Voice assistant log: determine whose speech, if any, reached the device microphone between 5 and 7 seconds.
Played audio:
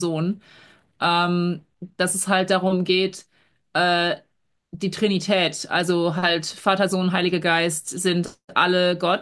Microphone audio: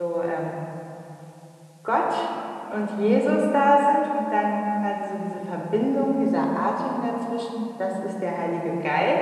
user only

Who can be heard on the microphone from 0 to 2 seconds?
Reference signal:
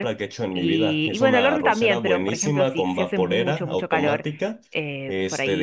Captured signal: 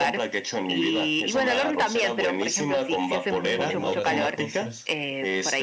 echo only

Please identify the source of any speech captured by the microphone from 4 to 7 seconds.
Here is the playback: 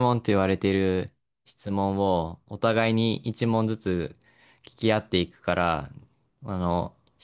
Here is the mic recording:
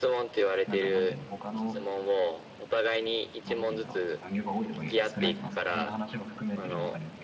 both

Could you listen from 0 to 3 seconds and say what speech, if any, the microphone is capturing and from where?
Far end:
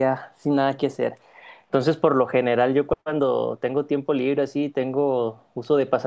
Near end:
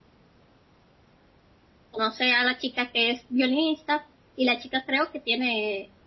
user only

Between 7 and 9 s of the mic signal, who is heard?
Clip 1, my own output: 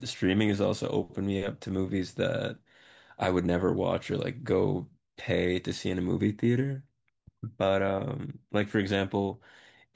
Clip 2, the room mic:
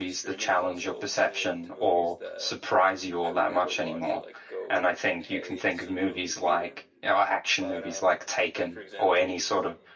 both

